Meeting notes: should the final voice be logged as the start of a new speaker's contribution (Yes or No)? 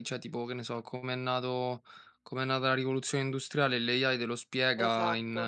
No